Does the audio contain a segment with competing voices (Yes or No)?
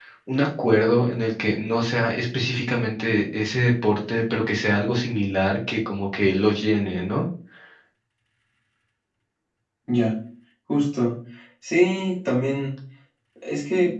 No